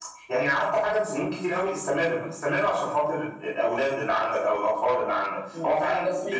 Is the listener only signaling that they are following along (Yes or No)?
No